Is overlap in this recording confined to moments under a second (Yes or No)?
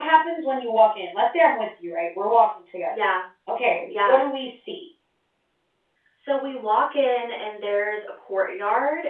Yes